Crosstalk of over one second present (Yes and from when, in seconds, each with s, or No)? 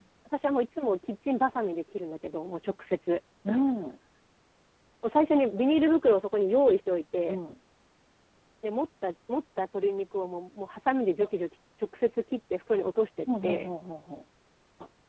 No